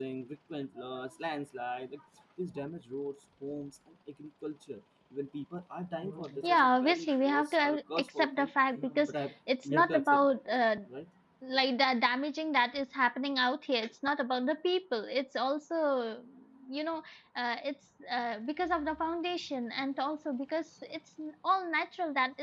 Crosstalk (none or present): present